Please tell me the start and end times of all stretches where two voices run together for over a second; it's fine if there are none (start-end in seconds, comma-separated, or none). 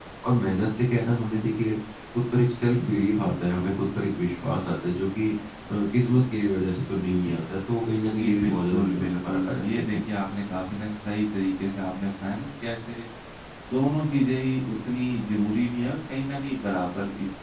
8.2-10.0